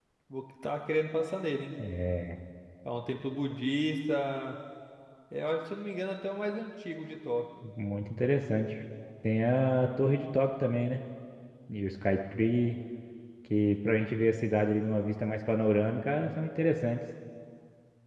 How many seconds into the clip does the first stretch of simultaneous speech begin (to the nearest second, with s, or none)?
none